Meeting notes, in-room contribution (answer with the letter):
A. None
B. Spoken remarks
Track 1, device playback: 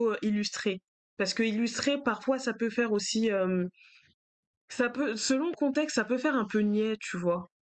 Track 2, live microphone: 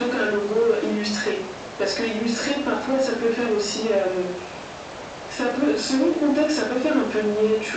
A